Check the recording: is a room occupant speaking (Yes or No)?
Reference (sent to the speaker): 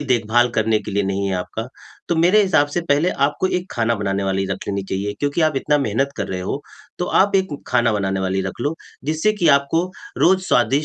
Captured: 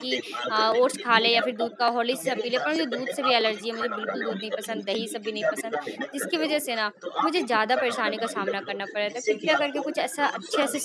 Yes